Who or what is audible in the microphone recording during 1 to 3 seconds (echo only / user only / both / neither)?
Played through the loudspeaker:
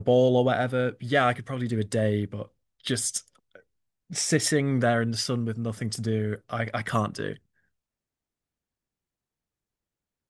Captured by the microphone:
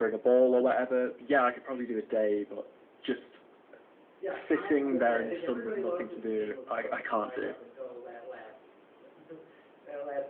echo only